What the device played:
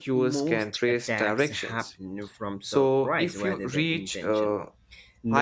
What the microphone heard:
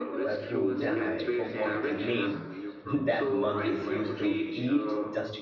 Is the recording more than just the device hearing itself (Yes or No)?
Yes